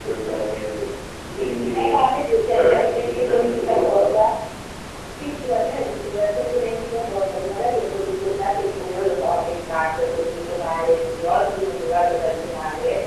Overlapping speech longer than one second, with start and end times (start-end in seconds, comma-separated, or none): 2.5-4.0